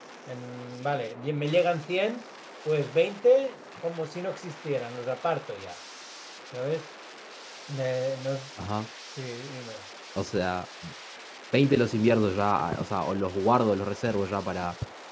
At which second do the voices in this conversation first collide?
none

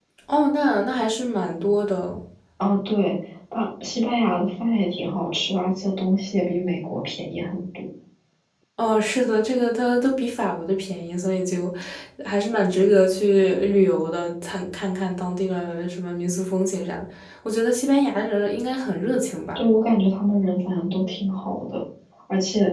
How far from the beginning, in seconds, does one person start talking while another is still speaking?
none

